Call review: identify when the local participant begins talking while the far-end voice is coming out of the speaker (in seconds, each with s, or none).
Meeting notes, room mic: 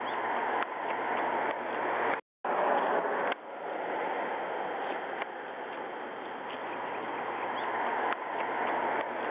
none